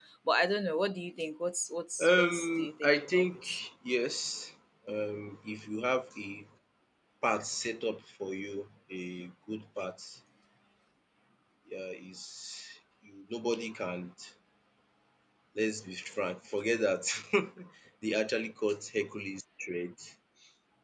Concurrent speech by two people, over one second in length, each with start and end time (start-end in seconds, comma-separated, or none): 2.0-3.5